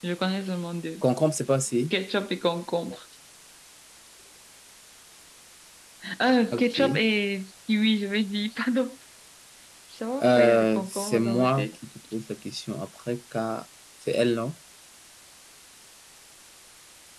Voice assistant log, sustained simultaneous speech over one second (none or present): present